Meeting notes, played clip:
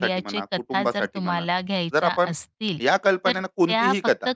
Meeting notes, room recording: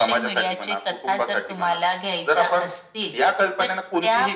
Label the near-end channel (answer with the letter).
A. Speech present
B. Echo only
B